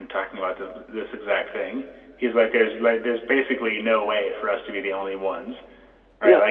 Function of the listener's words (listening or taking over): listening